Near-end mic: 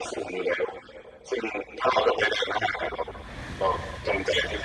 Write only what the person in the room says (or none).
none